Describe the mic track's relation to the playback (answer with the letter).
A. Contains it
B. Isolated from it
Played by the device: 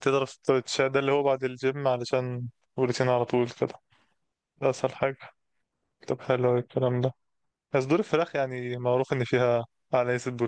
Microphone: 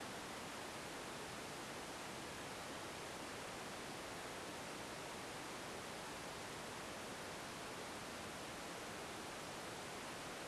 B